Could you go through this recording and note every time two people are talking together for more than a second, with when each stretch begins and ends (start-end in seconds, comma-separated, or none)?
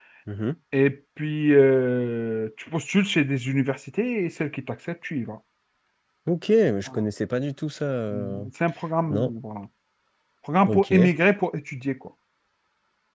none